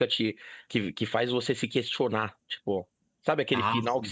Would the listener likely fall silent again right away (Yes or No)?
Yes